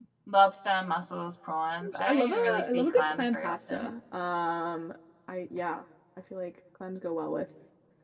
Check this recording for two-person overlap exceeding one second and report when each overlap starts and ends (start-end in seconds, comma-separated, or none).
1.8-3.9